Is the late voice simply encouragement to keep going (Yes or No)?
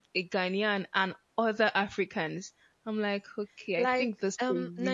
No